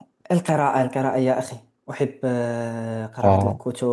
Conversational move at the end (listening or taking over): listening